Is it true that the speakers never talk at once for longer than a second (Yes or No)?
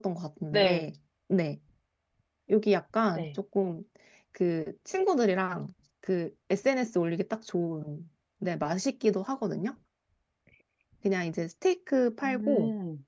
Yes